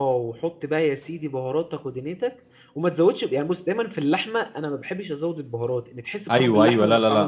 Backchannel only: No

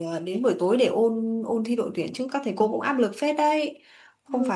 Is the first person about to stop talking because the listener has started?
No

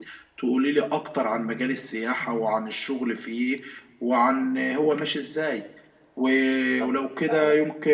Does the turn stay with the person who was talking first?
Yes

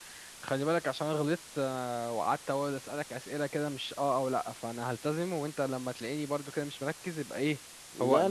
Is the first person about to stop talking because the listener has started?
Yes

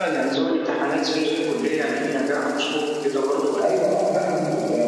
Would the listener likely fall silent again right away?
No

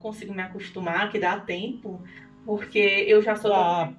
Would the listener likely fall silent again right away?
Yes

